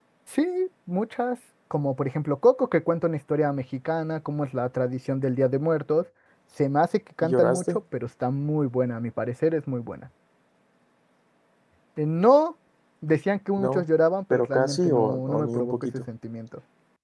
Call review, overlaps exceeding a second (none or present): present